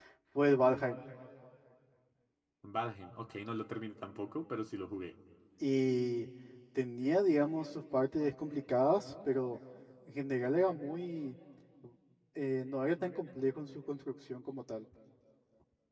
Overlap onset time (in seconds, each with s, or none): none